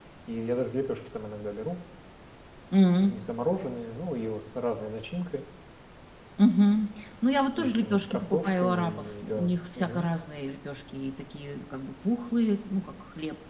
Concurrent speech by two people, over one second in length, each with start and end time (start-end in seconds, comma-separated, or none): 7.5-10.1